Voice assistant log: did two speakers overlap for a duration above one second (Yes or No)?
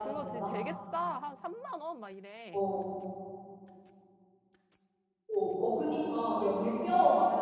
No